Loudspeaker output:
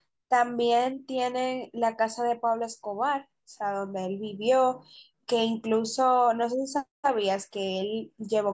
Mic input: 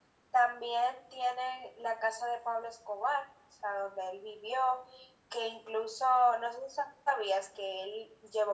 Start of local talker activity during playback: none

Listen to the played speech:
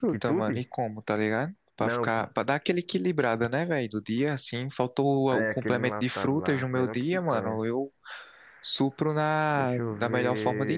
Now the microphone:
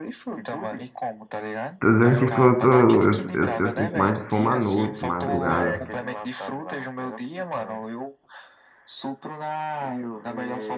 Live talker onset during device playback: 1.8 s

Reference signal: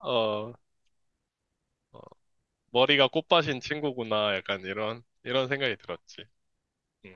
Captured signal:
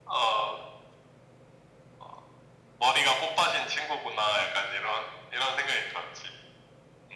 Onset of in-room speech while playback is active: none

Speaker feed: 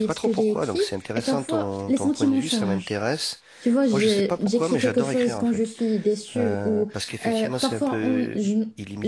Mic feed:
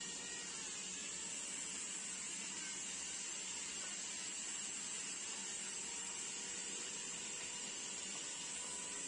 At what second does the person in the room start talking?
none

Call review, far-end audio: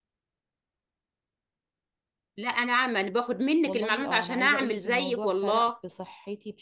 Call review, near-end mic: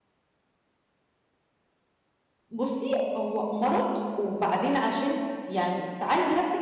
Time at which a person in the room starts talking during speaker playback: 2.5 s

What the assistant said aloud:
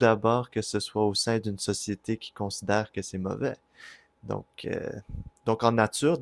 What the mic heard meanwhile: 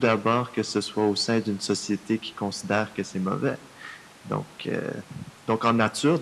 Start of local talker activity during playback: none

